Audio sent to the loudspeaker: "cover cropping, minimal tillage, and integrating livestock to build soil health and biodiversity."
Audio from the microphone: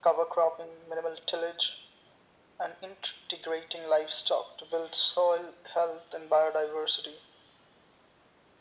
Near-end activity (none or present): none